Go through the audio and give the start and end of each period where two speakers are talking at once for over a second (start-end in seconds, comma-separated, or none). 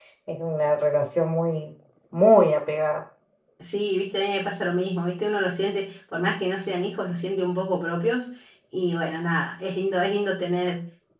none